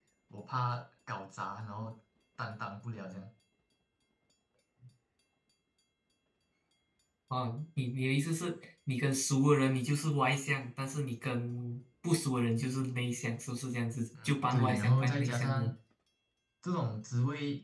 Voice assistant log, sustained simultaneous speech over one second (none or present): present